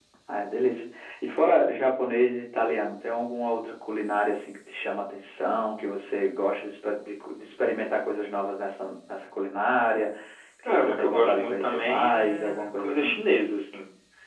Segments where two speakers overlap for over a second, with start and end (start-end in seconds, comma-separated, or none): 10.7-13.2